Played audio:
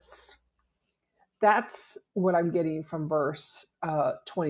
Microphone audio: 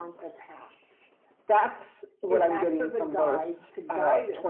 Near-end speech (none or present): present